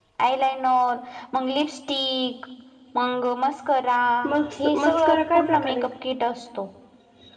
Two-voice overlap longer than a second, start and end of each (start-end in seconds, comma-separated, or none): 4.6-5.8